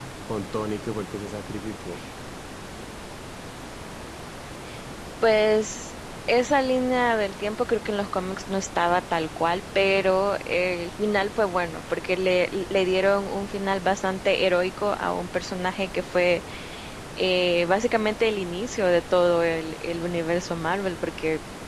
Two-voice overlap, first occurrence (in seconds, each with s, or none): none